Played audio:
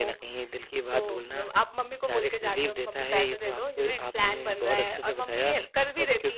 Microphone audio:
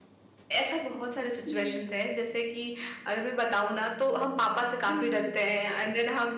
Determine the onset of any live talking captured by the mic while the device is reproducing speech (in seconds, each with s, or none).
0.5 s